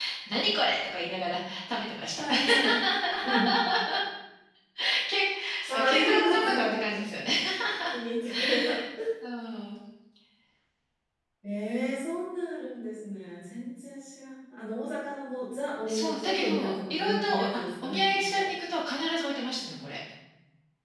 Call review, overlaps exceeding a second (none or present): present